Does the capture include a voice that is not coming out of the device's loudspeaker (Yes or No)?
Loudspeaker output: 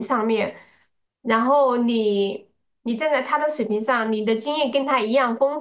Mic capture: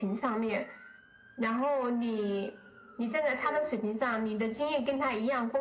Yes